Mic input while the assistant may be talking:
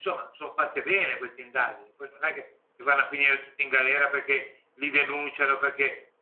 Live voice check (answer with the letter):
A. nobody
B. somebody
A